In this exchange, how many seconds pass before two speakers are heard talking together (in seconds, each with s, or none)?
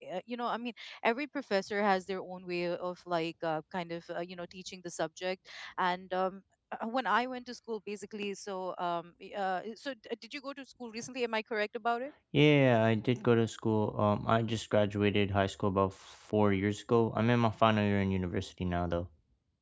none